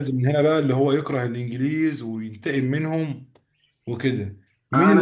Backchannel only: No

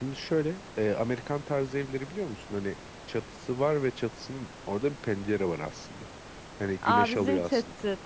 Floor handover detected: Yes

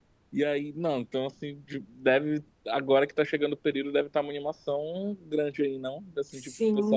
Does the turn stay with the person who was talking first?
No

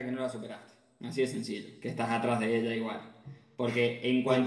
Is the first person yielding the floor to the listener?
No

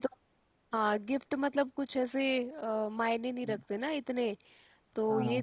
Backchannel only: No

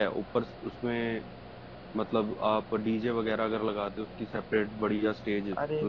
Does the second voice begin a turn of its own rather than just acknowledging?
Yes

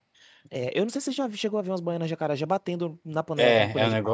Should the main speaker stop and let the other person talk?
Yes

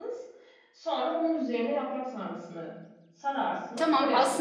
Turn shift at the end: Yes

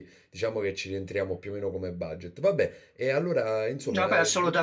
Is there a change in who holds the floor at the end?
Yes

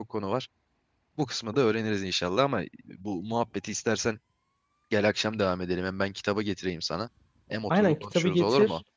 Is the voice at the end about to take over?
Yes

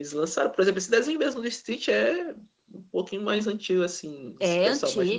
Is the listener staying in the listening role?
No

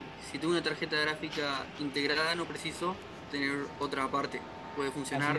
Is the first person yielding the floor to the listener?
Yes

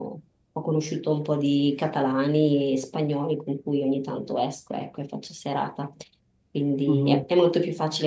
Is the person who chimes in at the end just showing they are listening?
Yes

